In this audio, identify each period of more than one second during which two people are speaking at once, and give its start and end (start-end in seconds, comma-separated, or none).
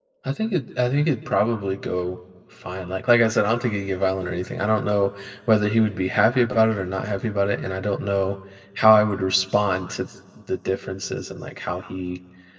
none